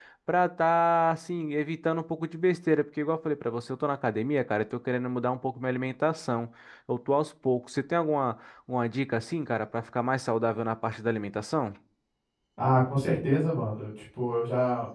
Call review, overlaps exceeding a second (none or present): none